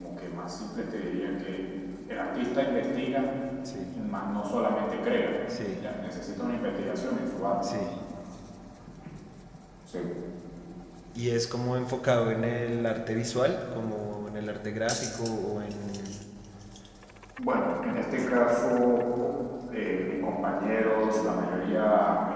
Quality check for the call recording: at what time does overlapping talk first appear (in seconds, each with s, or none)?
none